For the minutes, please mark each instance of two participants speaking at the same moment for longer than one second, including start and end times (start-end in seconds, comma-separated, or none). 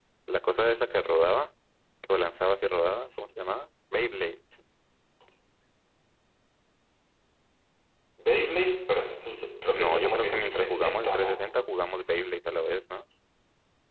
9.7-11.3